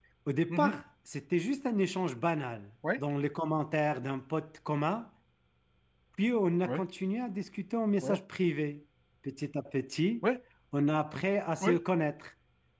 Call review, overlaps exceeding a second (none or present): none